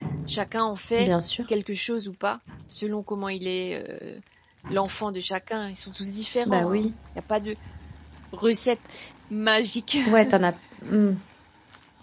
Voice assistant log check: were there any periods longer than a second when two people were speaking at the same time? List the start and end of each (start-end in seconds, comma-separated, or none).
none